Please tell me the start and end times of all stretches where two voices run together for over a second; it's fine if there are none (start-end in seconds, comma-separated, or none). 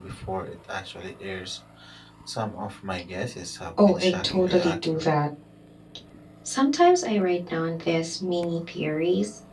3.8-5.1